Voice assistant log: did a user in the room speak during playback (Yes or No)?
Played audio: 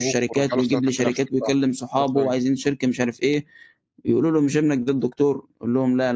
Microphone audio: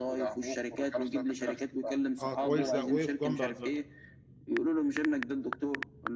Yes